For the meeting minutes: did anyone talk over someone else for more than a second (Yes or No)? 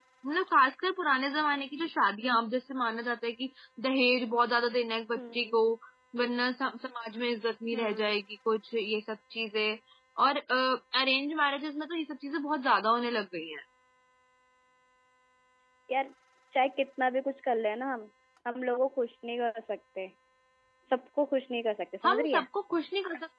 No